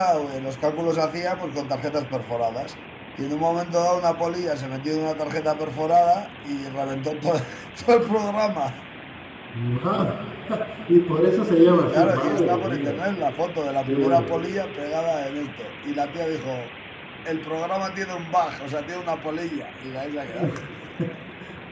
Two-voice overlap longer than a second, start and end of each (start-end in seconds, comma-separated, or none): 11.7-13.0